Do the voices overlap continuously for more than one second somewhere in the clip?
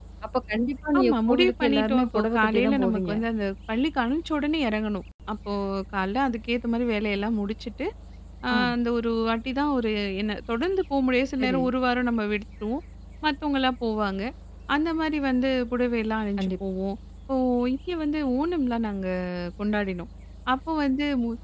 Yes, from 1.0 s

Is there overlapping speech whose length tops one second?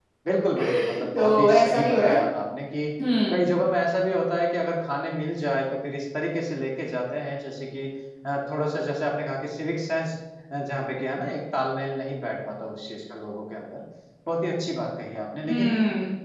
Yes, from 0.6 s

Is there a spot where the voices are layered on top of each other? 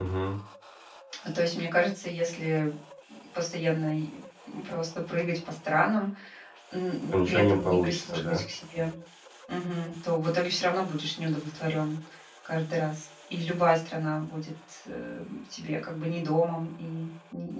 Yes, from 7.1 s

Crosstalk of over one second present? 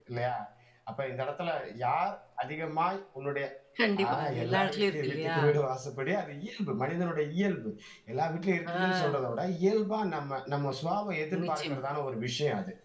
Yes, from 4.1 s

